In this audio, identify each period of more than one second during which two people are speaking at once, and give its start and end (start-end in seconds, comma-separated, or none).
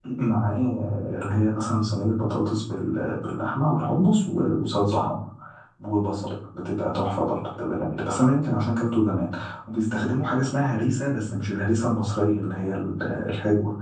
none